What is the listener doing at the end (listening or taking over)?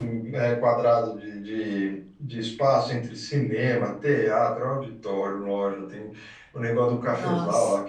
listening